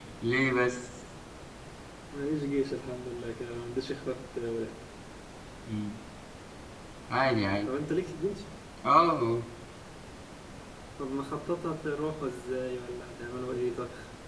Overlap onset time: none

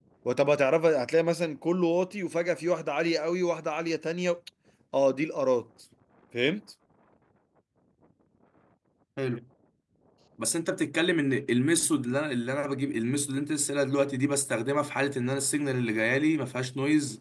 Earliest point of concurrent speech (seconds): none

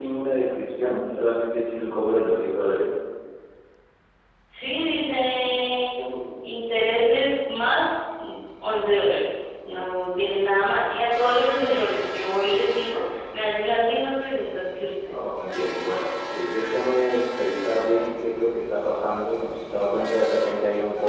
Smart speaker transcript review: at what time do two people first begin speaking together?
none

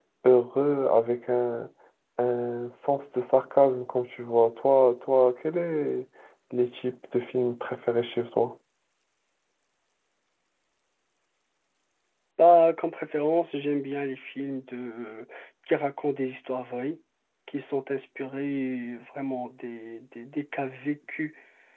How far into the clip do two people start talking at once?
none

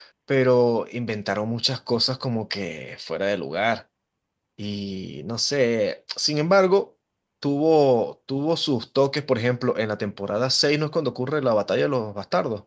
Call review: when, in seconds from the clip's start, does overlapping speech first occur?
none

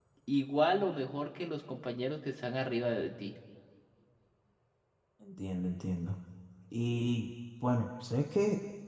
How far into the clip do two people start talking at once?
none

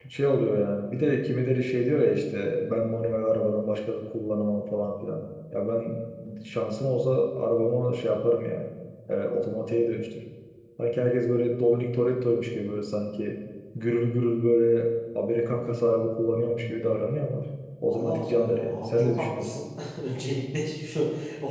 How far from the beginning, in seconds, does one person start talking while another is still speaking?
18 s

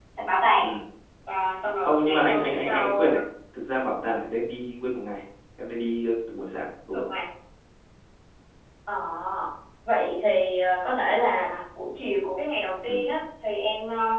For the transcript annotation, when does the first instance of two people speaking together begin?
2 s

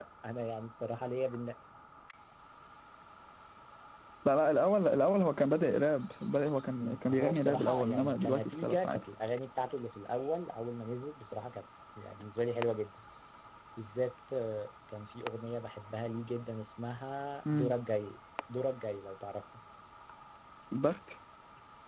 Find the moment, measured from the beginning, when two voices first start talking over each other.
7 s

